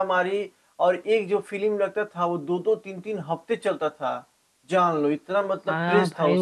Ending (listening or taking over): taking over